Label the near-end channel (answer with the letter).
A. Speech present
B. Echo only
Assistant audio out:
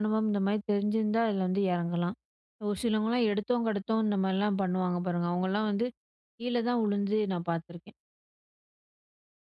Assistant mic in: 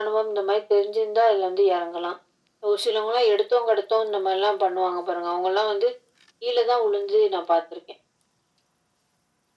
B